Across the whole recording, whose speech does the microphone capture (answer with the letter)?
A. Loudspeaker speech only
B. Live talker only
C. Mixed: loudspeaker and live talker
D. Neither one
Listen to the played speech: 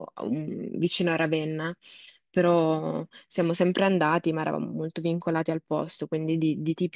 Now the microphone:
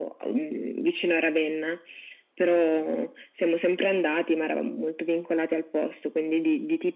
A